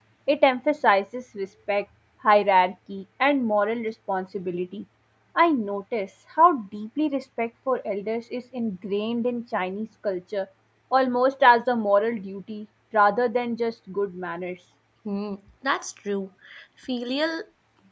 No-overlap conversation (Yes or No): Yes